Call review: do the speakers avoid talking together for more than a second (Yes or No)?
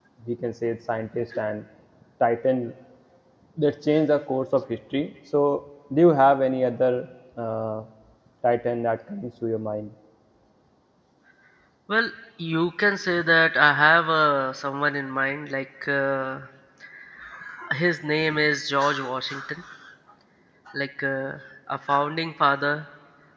Yes